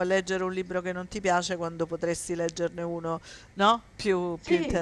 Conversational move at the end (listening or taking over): taking over